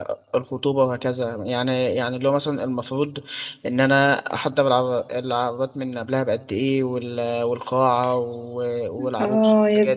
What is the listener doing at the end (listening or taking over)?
taking over